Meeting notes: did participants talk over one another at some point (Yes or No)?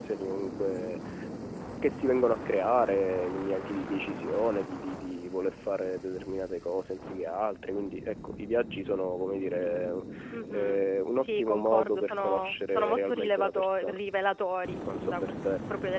Yes